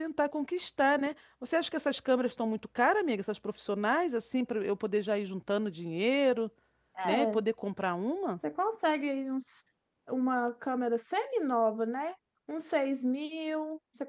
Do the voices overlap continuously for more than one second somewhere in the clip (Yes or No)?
No